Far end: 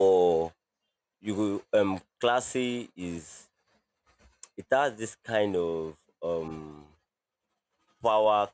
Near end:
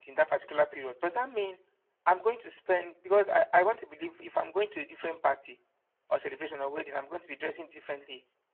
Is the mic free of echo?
Yes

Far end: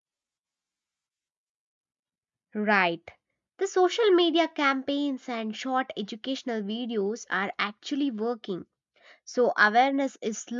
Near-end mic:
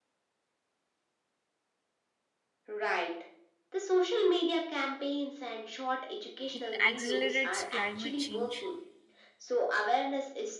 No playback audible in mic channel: No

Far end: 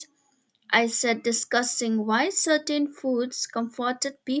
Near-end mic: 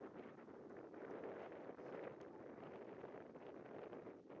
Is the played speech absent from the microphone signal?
Yes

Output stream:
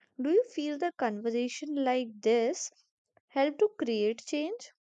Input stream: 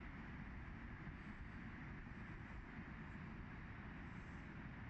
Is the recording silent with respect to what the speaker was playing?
Yes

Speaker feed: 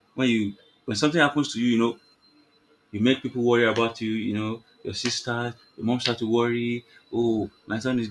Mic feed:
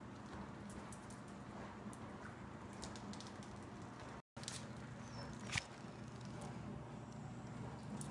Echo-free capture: Yes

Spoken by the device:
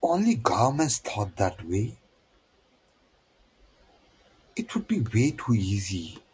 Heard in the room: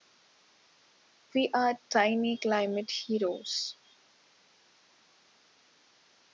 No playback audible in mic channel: Yes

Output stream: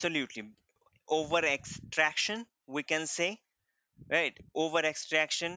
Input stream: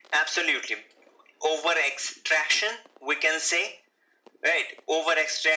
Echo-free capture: No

